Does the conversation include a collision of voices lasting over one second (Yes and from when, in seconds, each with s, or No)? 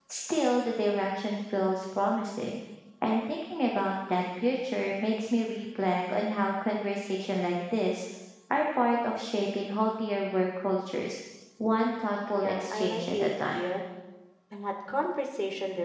Yes, from 12.4 s